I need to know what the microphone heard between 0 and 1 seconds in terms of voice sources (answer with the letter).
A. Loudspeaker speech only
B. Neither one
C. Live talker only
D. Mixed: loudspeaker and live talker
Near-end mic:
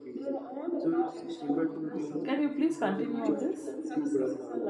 A